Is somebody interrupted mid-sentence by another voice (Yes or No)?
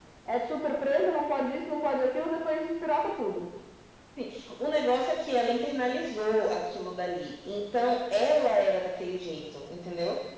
No